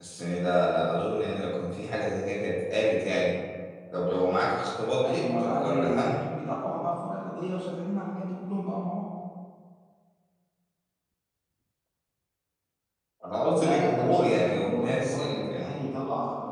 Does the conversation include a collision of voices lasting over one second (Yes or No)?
Yes